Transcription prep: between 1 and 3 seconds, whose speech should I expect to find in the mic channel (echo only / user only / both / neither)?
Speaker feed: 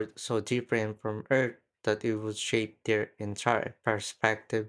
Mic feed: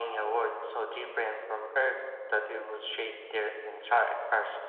echo only